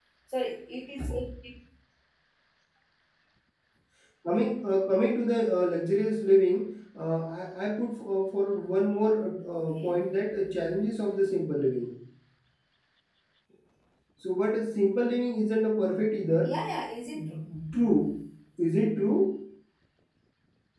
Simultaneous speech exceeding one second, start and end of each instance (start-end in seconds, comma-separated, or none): none